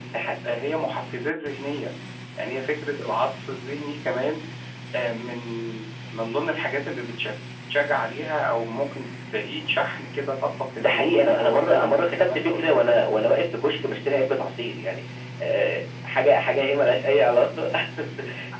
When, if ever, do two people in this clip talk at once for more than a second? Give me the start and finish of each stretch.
10.8-12.7

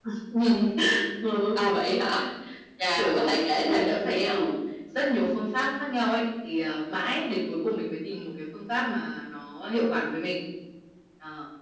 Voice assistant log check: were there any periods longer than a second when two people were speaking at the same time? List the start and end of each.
3.0-4.5

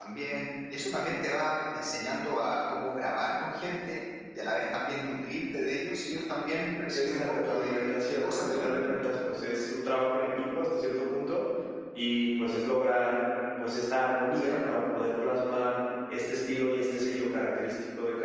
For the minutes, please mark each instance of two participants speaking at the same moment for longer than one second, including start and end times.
6.9-8.7

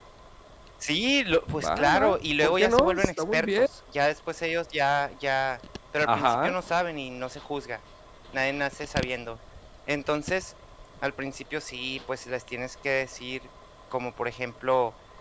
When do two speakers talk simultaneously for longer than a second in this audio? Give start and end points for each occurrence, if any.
1.6-3.6

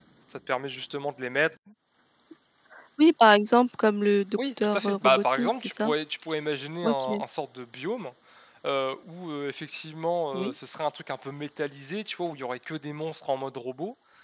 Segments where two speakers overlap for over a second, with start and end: 4.4-5.9

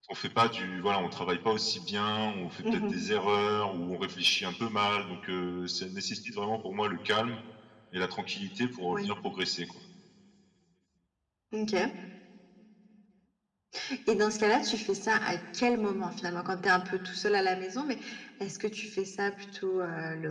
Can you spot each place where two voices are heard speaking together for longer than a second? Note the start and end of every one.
none

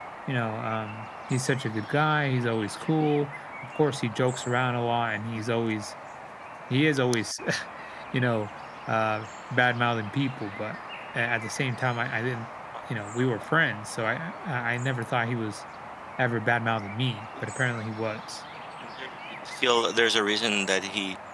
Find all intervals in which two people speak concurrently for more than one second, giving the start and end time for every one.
none

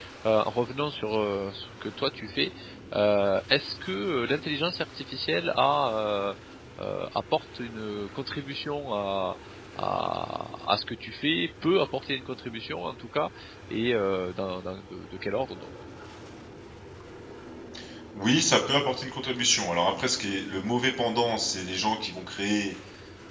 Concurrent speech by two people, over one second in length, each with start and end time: none

